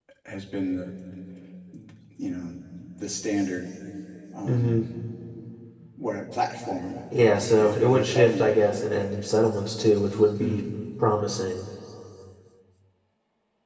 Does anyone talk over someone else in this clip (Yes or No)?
Yes